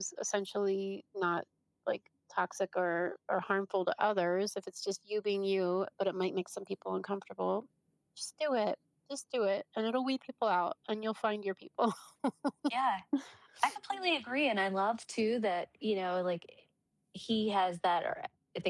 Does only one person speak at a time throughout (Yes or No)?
Yes